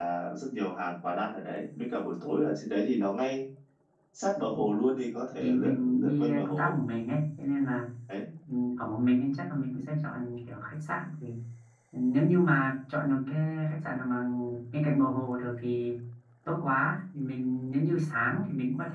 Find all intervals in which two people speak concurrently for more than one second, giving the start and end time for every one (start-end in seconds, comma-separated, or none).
5.4-6.7